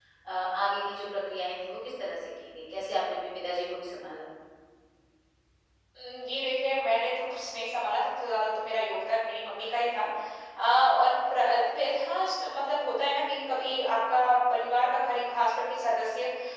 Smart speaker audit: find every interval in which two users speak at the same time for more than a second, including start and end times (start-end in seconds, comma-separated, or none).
none